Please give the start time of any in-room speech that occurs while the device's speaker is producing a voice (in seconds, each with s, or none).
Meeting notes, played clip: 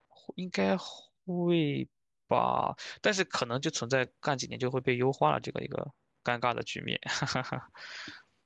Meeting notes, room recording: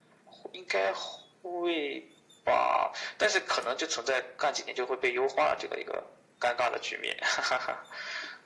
none